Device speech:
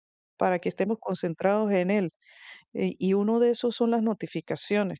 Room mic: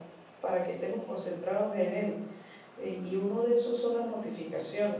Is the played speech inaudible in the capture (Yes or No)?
No